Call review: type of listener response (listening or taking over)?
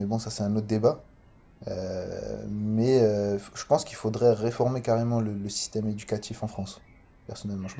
taking over